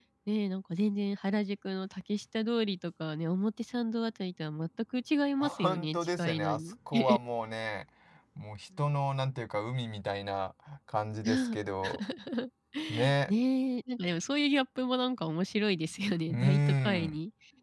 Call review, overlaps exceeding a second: present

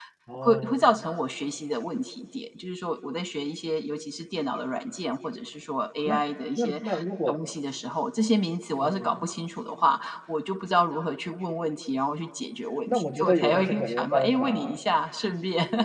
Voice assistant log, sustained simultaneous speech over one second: present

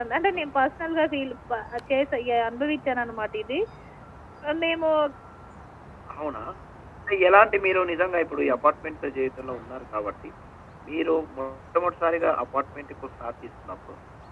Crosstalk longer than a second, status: none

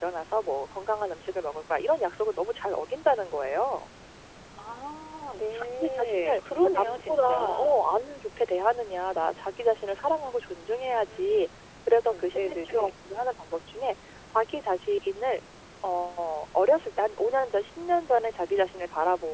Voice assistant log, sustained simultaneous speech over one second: present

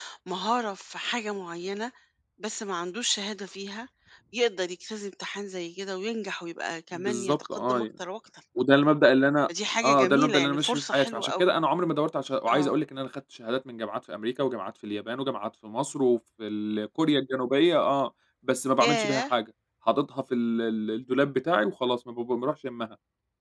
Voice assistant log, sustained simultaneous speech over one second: present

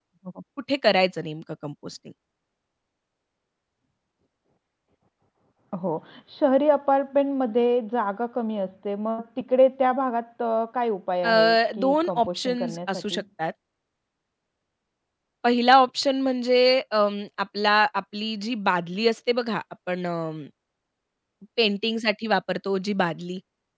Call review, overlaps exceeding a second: present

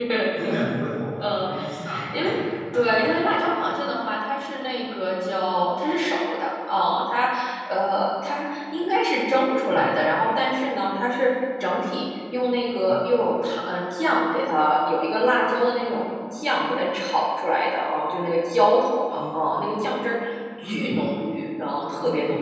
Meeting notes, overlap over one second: none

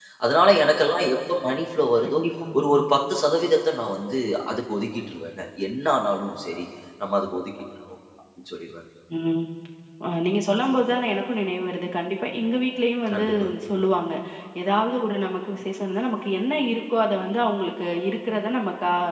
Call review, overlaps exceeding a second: none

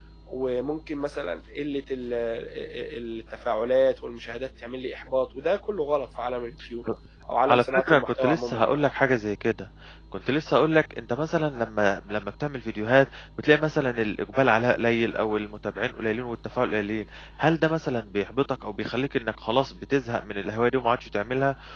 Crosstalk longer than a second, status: present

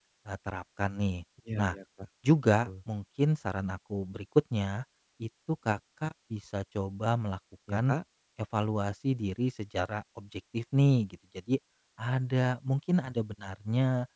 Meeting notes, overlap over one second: none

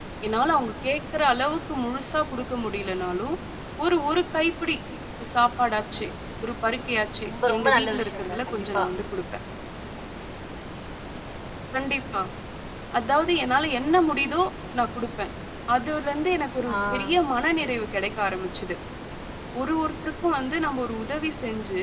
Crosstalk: present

